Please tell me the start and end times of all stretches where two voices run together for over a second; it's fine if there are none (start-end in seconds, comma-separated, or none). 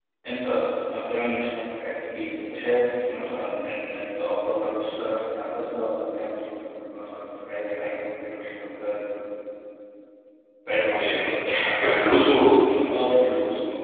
10.9-12.5